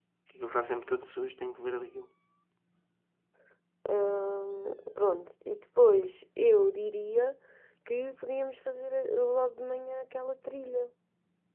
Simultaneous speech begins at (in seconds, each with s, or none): none